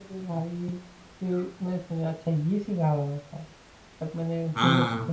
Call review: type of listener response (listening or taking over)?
listening